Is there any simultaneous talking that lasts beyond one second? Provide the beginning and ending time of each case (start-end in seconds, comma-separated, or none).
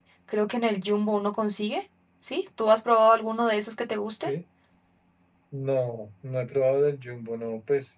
none